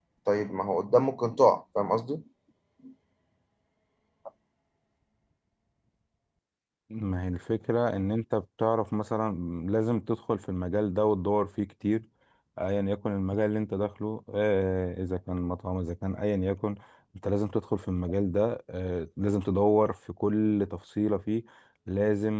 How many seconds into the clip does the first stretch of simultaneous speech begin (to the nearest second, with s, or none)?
none